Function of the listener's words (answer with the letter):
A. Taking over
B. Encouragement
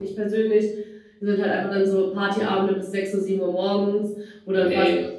B